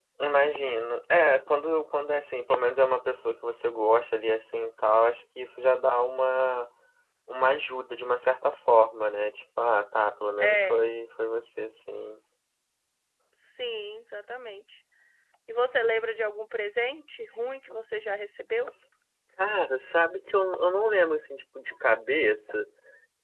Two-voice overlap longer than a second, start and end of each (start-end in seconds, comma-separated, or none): none